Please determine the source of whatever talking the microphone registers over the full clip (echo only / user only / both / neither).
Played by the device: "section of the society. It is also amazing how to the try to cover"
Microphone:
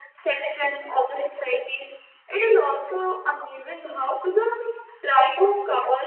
echo only